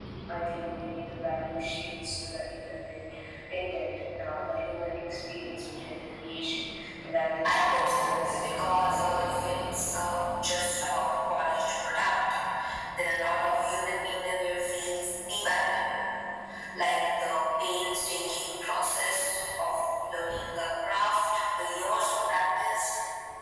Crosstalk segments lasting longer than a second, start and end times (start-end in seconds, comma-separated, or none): 7.5-9.2